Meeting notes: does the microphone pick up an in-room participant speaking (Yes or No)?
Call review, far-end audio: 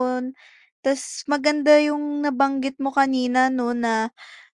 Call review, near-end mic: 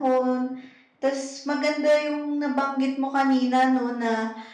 No